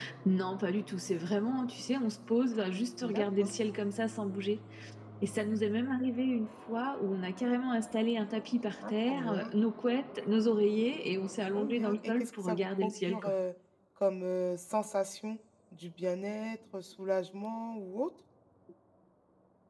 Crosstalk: present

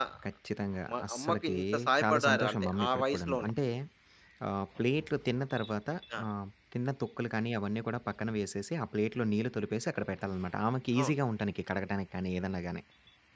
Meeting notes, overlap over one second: present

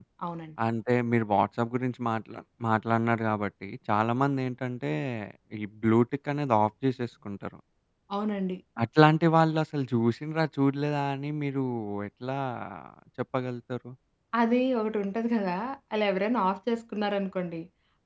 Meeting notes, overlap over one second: none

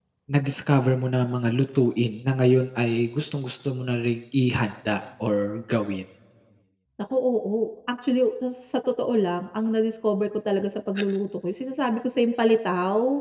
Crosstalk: none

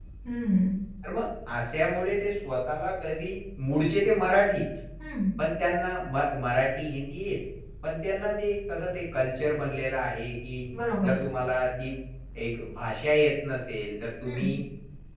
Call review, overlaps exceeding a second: none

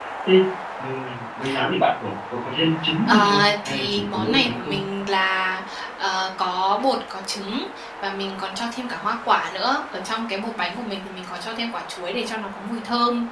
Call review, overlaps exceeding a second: present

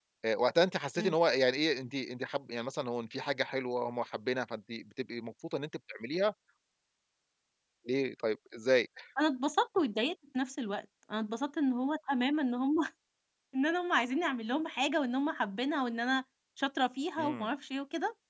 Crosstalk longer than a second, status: none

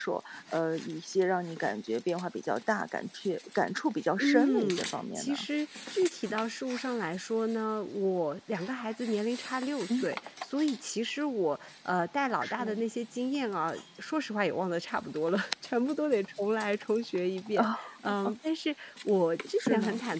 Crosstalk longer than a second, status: present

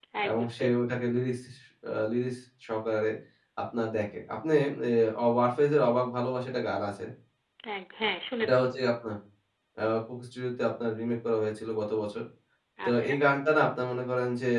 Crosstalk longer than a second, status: none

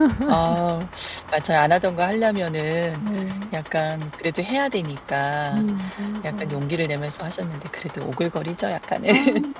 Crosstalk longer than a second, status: none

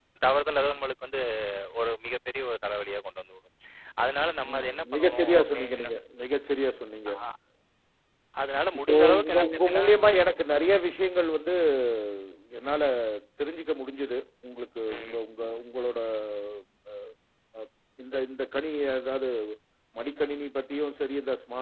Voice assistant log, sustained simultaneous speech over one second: present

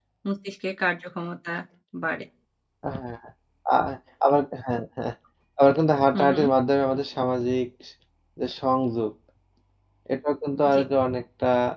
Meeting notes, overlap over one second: none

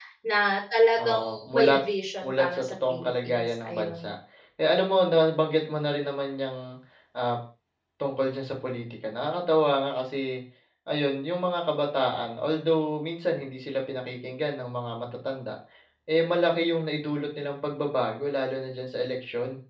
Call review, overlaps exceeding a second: present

